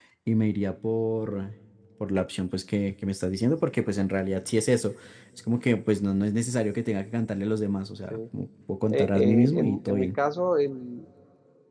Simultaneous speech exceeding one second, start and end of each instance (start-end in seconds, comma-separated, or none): 8.9-10.2